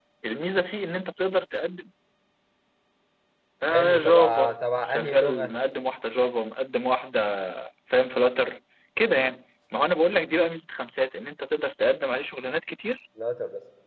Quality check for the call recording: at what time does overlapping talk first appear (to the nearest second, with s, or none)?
4 s